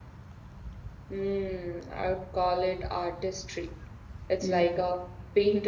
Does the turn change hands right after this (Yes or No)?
No